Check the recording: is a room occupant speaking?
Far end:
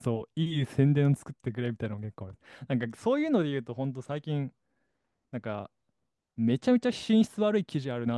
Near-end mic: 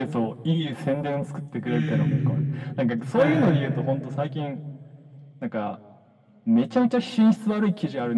Yes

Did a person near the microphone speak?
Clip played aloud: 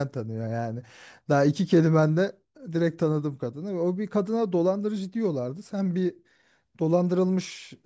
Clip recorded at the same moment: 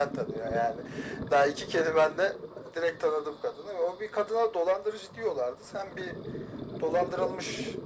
No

